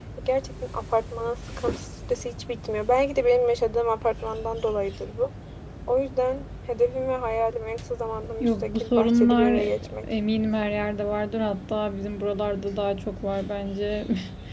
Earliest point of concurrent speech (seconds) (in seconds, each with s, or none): 8.4 s